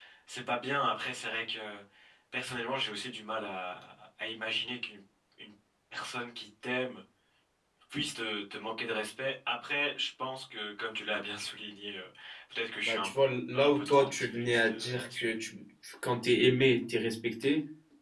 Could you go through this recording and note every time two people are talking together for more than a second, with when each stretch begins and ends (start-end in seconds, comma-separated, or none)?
13.5-15.3